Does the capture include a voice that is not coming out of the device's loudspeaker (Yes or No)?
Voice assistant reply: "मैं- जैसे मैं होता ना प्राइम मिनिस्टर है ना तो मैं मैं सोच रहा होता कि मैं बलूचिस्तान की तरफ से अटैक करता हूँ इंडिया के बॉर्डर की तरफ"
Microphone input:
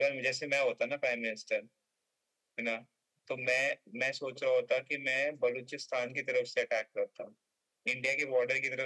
No